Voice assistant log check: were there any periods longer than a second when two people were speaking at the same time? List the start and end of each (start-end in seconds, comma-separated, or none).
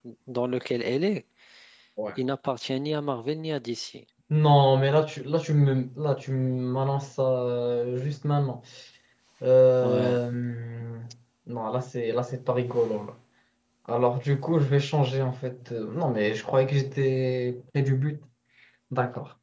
none